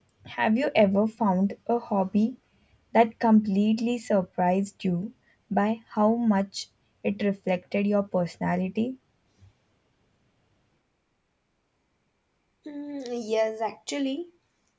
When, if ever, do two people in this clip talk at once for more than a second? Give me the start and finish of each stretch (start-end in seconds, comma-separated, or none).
none